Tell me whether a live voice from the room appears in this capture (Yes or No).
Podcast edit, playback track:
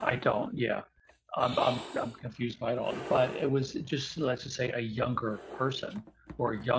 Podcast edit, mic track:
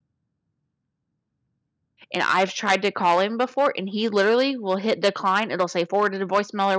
Yes